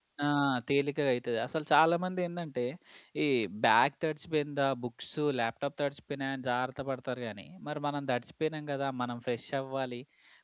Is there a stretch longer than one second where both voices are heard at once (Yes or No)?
No